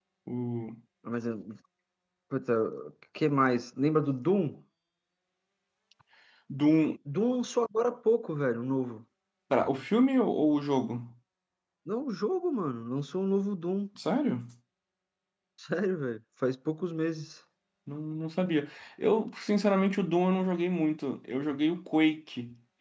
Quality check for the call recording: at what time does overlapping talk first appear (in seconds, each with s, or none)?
none